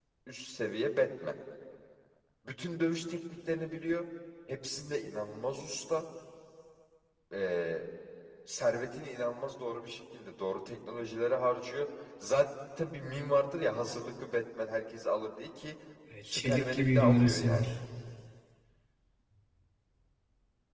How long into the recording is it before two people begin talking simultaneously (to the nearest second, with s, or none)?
16 s